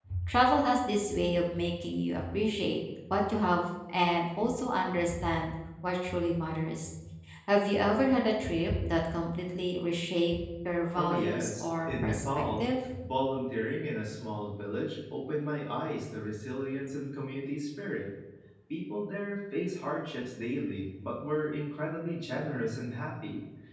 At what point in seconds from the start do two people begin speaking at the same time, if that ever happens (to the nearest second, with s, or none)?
11 s